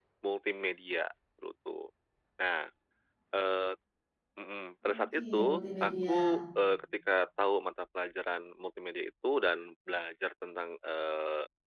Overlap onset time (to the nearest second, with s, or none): 5 s